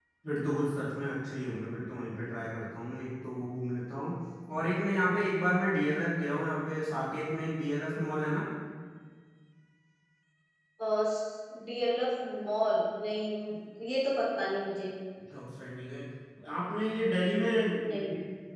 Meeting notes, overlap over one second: none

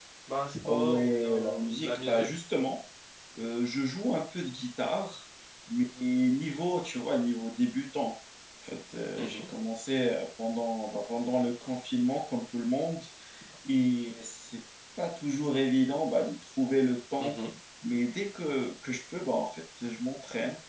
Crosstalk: present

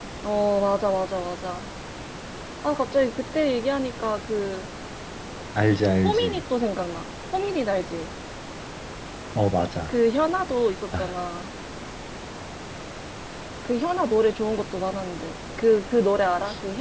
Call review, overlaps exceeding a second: none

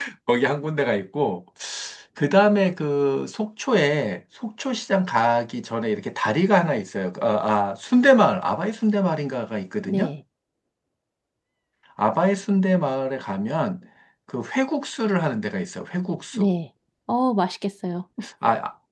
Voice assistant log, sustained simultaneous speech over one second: none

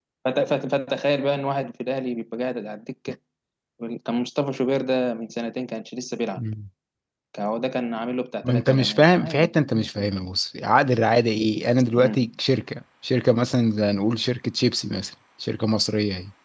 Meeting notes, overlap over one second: present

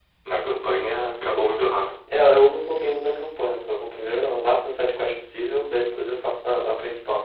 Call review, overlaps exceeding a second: none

